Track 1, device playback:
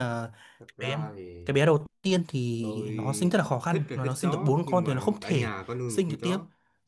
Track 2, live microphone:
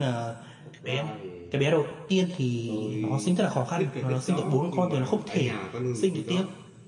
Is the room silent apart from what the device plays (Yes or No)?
Yes